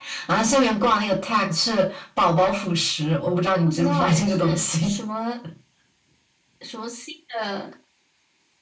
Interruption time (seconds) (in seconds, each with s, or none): 3.6 s